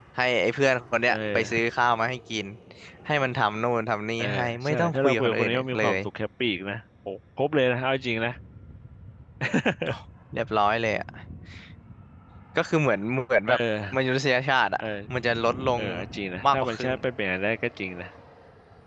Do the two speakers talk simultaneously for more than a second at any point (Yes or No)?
Yes